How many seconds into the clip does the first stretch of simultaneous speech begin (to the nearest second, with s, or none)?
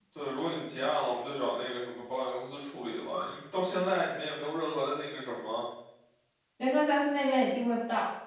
none